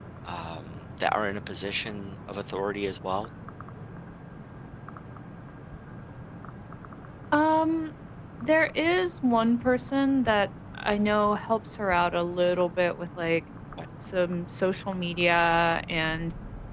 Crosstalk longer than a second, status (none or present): none